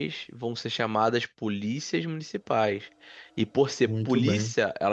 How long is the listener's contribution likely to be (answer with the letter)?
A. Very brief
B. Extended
A